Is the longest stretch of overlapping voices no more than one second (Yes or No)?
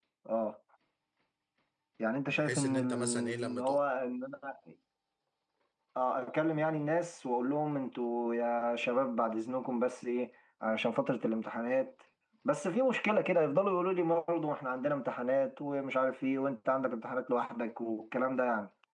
No